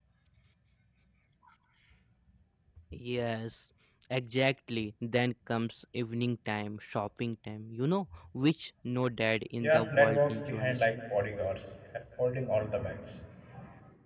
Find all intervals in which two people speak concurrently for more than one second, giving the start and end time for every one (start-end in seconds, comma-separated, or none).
9.6-10.9